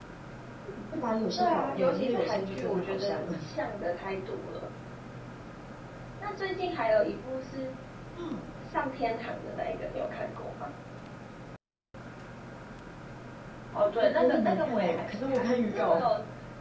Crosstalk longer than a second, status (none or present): present